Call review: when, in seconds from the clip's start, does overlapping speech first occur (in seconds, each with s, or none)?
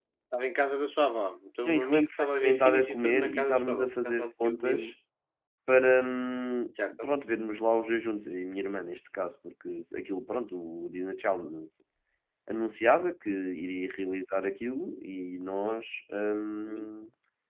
1.6 s